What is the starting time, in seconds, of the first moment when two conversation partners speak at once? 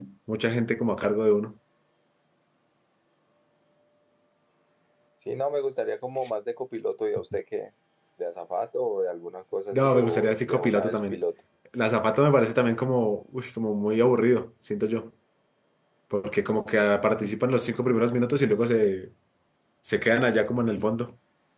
10 s

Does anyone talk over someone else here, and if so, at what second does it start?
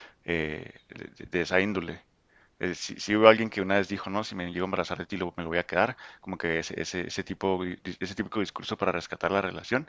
none

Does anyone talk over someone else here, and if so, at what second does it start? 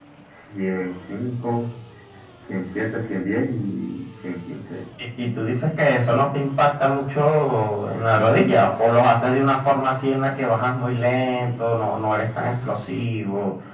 none

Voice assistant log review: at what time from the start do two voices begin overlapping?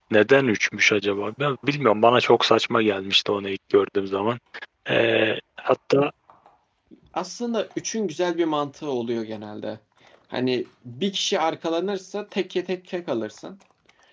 none

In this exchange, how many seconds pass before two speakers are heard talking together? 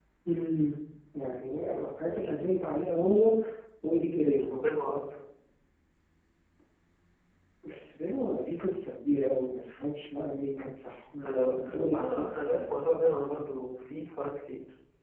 11 s

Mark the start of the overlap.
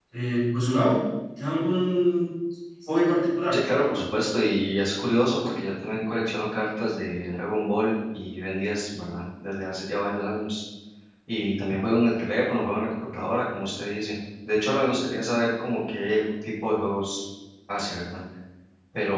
none

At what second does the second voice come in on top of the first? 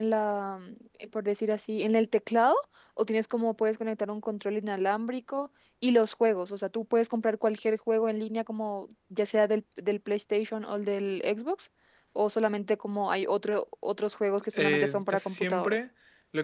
15 s

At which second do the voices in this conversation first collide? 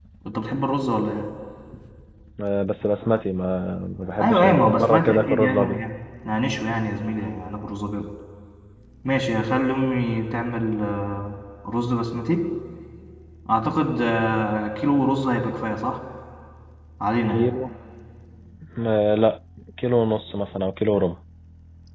4 s

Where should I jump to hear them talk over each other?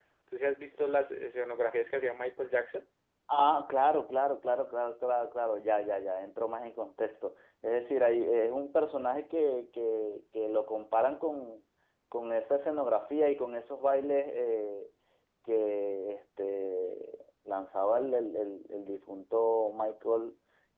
none

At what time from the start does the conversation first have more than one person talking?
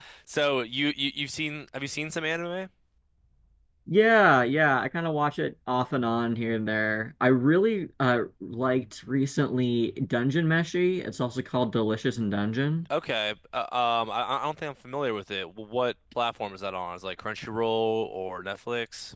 none

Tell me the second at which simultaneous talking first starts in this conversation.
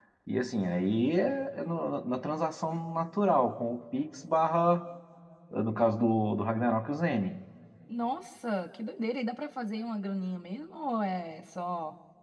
none

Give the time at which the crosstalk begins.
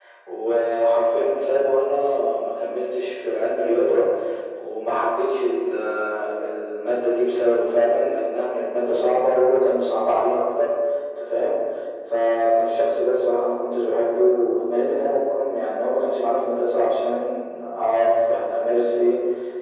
none

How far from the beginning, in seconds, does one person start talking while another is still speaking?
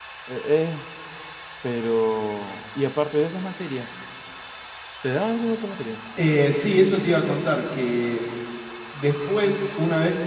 none

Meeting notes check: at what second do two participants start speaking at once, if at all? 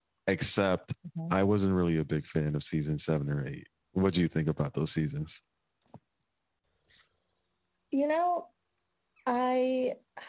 none

